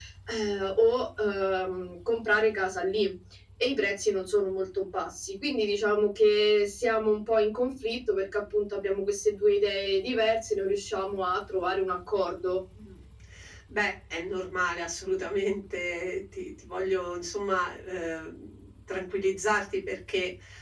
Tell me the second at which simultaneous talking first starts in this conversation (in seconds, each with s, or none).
none